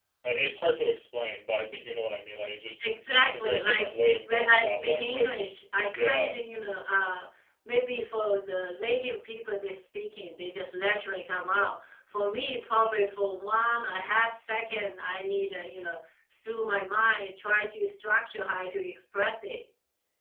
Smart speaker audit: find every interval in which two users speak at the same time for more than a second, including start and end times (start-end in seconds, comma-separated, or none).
2.8-5.4